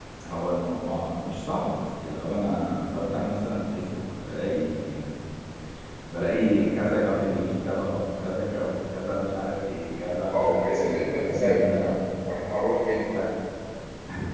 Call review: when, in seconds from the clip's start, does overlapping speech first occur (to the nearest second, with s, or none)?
10 s